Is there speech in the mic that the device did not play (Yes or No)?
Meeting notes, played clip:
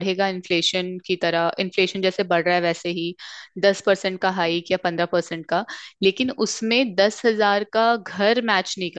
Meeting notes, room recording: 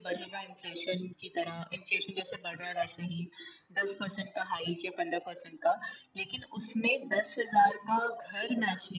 No